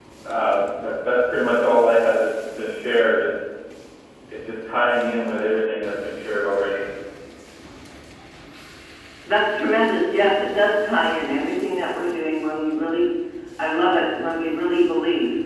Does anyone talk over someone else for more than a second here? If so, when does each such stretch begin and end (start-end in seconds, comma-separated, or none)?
none